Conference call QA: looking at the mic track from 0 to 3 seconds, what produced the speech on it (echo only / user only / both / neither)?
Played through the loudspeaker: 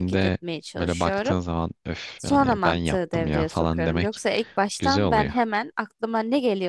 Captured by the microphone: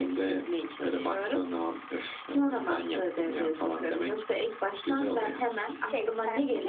echo only